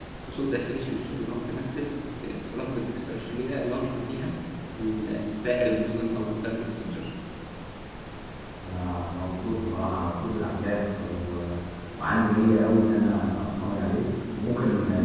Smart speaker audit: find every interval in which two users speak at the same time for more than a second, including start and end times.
none

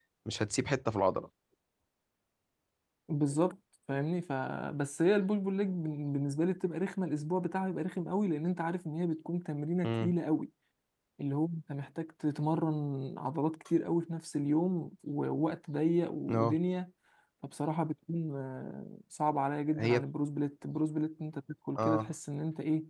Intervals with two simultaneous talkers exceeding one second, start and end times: none

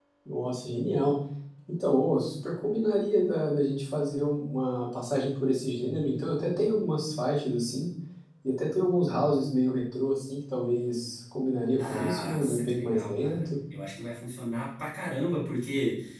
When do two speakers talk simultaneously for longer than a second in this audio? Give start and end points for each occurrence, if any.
11.8-13.5

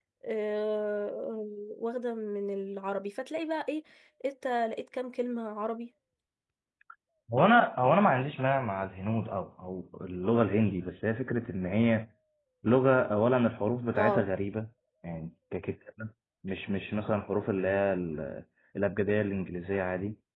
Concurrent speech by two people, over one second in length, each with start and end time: none

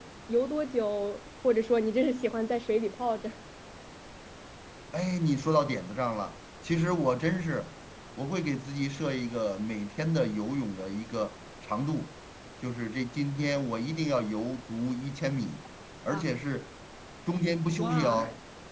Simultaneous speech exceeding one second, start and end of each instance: none

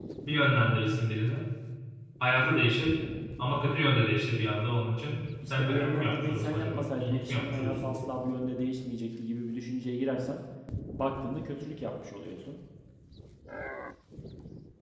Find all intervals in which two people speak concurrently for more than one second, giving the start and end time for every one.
5.5-7.9

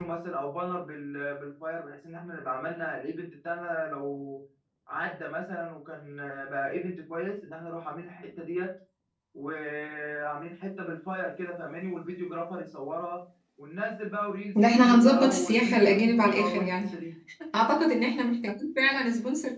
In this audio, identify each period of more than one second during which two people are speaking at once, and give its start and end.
14.6-16.9

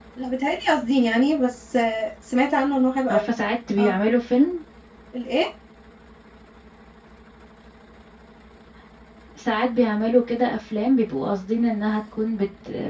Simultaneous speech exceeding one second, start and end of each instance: none

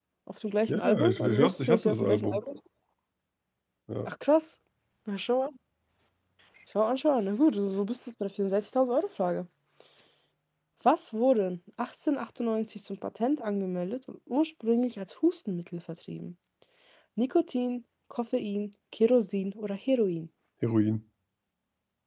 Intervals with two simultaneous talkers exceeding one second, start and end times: 0.7-2.5

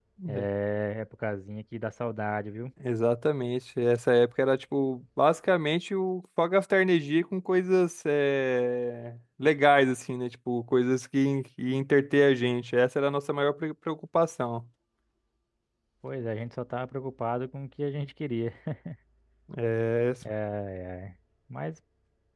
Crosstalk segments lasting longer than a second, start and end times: none

